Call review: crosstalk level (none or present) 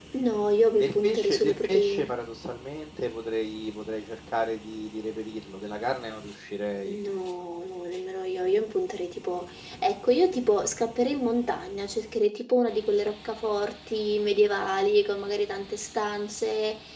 present